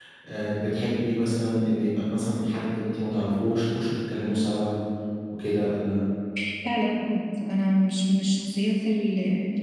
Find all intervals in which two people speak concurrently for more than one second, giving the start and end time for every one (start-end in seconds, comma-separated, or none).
none